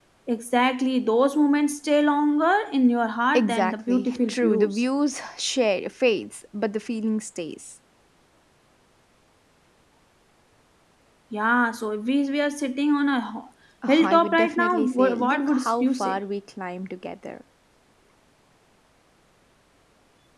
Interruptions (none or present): present